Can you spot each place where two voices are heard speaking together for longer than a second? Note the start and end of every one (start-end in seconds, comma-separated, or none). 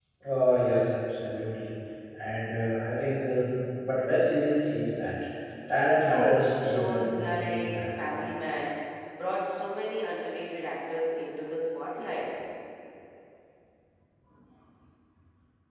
6.0-8.1